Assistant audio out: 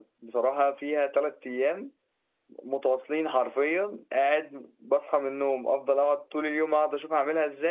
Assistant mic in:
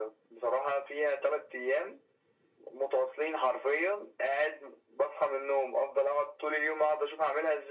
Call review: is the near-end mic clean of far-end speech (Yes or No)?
No